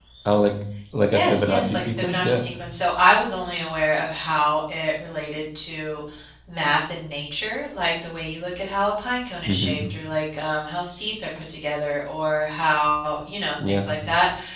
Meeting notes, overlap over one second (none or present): present